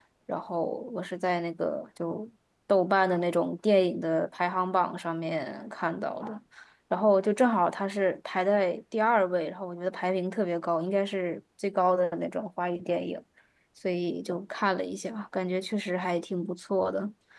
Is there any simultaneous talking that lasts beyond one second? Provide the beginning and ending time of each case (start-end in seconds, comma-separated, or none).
none